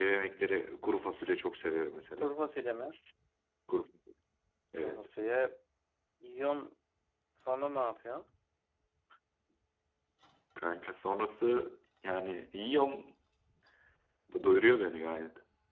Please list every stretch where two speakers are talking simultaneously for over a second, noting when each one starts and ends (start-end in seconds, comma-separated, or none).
none